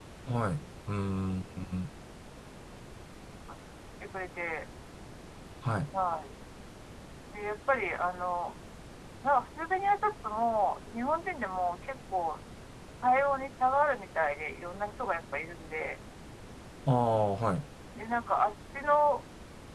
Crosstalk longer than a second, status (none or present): none